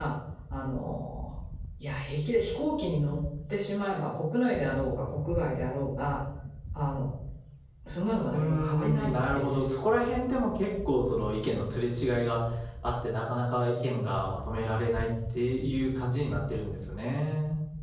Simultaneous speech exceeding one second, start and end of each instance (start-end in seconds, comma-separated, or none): 8.3-9.6